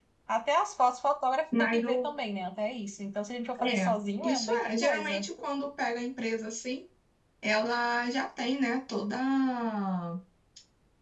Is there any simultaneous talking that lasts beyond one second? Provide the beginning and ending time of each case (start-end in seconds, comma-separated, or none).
3.6-5.2